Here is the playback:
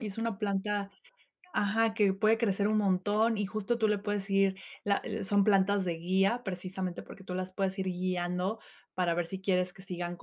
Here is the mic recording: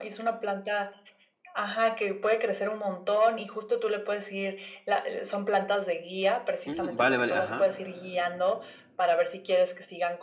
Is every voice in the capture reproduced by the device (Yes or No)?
No